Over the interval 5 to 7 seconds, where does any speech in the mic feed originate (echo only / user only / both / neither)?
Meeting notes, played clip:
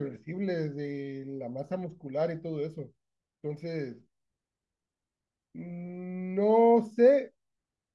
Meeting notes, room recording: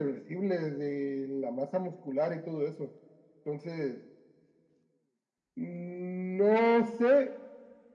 echo only